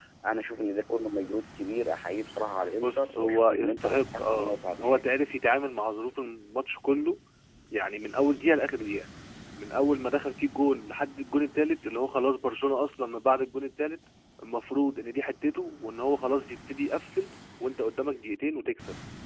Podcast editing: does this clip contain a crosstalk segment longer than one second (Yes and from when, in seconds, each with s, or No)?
Yes, from 2.8 s